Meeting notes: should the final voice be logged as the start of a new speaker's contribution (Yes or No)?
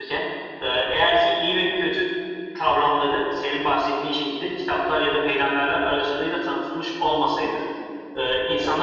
No